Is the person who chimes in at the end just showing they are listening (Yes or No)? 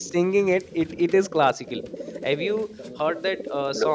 No